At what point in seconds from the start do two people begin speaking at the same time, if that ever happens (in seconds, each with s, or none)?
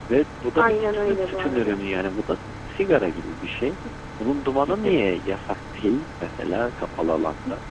0.6 s